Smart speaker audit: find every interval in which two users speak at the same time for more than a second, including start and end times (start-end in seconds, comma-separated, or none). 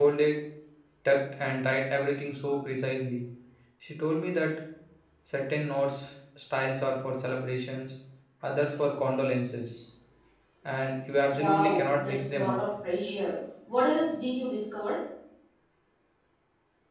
11.3-12.6